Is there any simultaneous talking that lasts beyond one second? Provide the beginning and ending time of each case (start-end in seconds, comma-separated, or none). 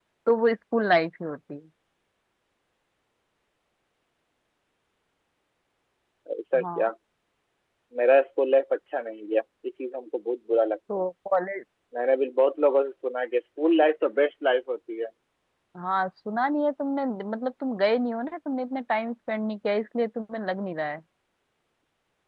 none